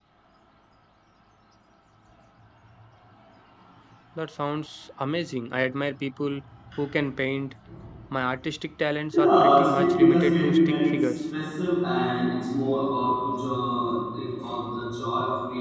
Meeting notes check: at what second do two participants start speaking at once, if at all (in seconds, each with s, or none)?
9.1 s